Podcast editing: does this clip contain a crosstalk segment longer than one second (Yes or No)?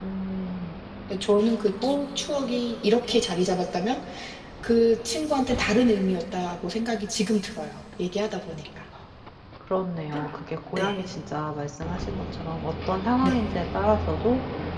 No